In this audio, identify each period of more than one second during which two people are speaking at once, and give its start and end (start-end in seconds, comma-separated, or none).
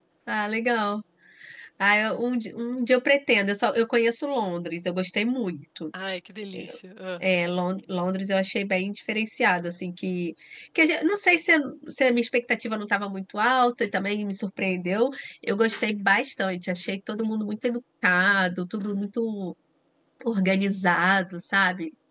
none